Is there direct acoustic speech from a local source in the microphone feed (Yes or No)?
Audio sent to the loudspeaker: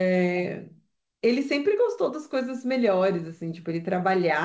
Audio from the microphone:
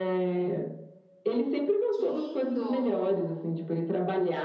Yes